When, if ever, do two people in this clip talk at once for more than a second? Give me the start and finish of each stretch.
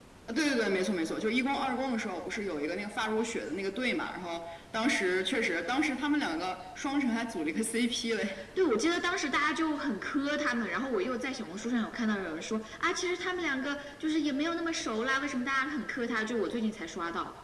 none

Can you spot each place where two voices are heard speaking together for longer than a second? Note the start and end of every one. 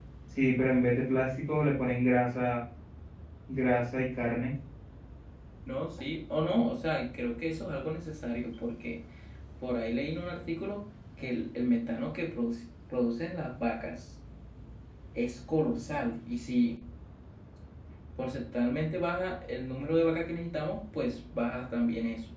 none

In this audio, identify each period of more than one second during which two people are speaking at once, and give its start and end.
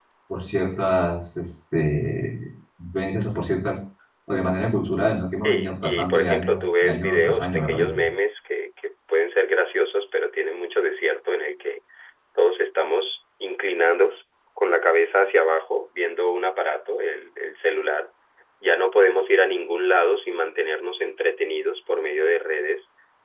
5.4-8.0

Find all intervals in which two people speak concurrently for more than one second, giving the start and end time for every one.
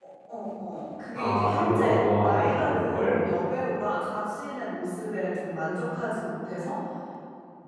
1.1-3.2

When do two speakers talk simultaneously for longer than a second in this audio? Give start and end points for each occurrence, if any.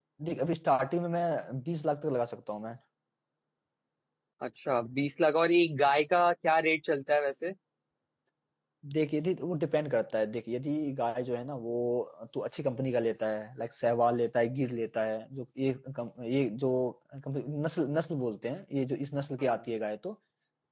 none

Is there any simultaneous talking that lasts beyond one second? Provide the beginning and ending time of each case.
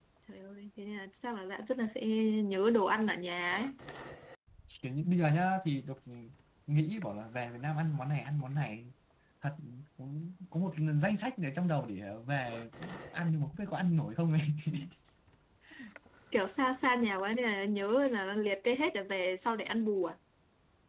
none

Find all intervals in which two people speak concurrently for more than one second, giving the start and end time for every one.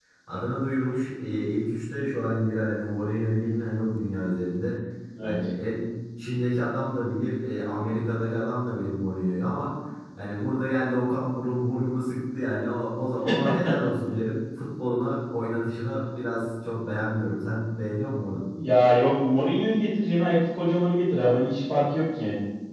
none

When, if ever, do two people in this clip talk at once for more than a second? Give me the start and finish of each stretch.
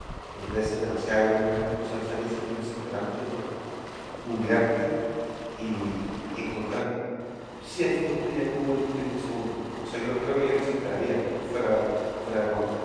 none

